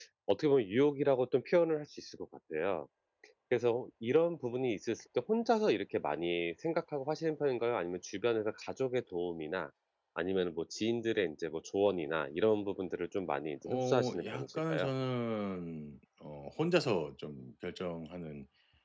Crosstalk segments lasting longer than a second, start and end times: 13.7-14.9

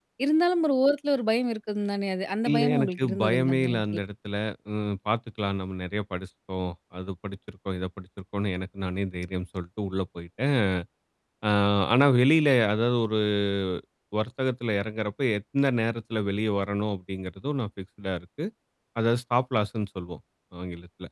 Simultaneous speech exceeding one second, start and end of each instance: 2.5-3.8

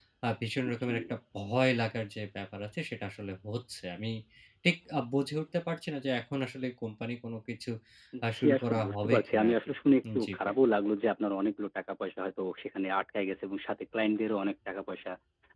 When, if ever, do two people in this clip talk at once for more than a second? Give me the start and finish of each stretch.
8.3-9.5

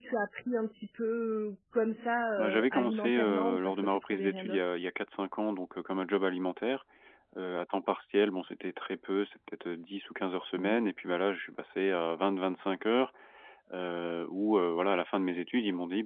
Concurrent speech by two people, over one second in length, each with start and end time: 2.4-4.7

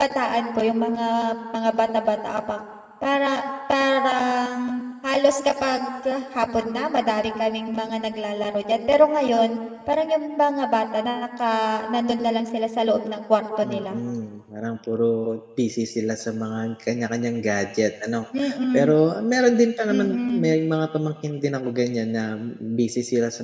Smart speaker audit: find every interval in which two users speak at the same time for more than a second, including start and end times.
none

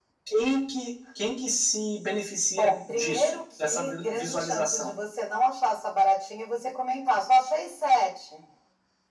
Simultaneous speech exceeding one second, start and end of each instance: 2.6-4.9

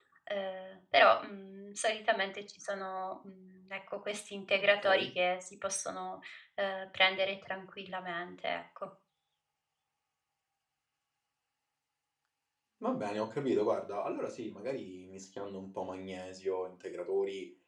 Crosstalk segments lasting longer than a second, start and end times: none

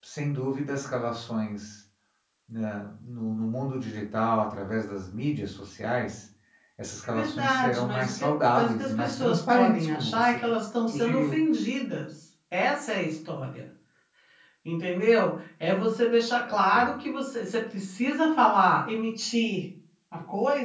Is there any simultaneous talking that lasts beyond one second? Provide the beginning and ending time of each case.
7.1-10.4

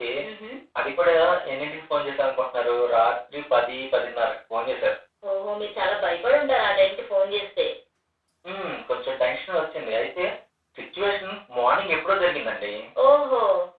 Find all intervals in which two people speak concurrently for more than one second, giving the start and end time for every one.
none

